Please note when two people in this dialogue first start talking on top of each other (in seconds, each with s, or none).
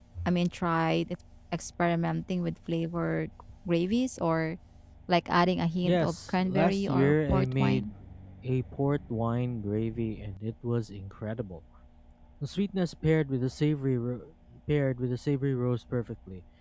5.8 s